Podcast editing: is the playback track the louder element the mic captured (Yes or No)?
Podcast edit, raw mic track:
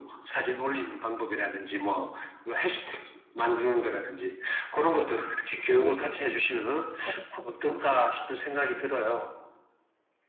Yes